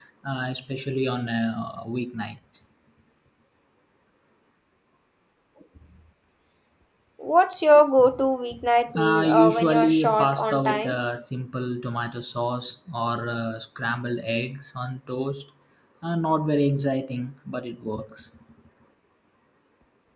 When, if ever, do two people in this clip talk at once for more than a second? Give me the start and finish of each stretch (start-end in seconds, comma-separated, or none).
9.0-11.0